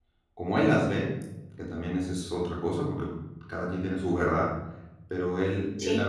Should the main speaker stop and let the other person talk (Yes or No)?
No